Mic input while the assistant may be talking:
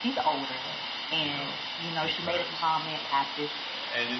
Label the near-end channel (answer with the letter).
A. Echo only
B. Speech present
B